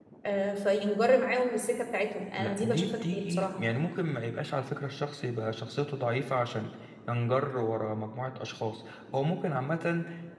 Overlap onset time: 2.4 s

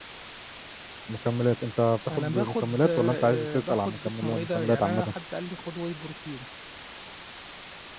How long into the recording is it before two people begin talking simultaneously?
2.1 s

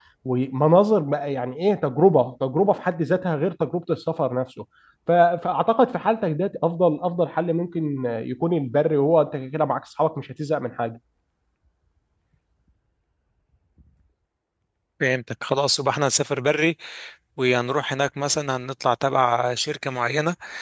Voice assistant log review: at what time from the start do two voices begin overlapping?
none

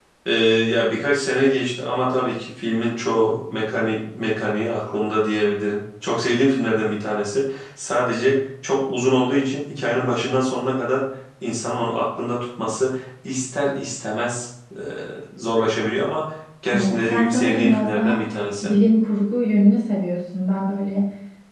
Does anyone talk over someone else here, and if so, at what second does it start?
16.7 s

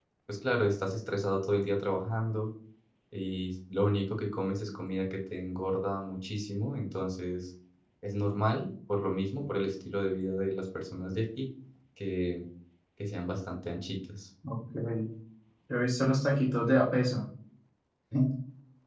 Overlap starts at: none

